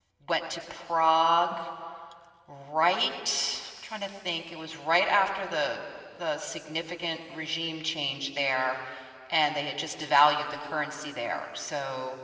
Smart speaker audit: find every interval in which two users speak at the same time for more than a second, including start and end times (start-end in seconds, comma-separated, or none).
none